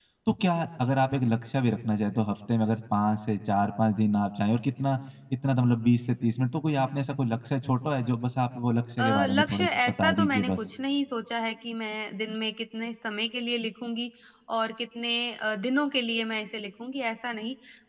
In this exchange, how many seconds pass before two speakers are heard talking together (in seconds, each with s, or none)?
9.0 s